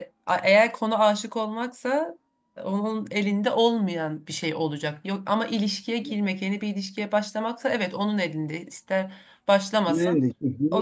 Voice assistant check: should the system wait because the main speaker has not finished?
No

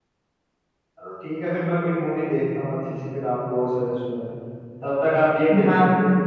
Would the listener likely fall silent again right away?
Yes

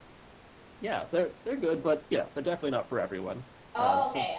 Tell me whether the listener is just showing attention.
No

